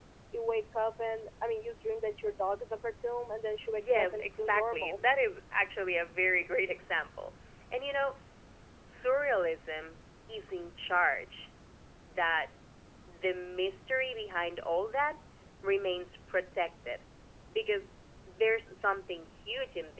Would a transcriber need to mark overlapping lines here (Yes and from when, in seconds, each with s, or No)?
Yes, from 3.8 s